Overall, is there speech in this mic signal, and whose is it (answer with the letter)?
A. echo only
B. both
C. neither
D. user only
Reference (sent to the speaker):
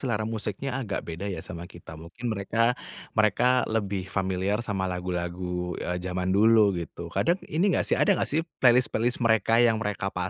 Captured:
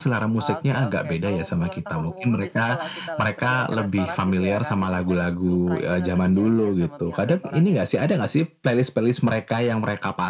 B